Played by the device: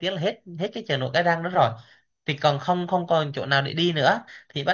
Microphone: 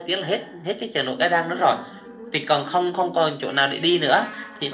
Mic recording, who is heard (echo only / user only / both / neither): both